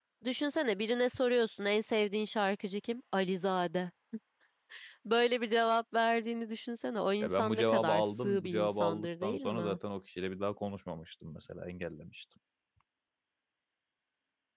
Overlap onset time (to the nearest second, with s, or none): 7 s